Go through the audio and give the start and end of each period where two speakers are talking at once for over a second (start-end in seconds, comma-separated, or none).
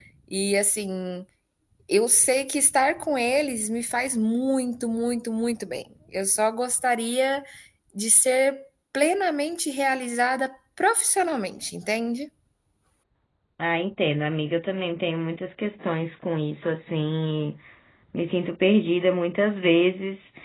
none